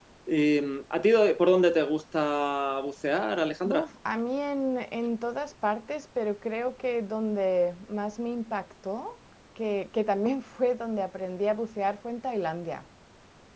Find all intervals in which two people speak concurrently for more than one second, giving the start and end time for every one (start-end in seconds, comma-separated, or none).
none